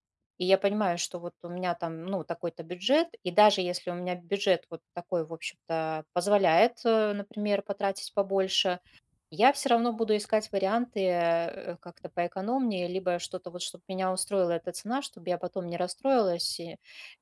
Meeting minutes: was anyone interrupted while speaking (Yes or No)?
No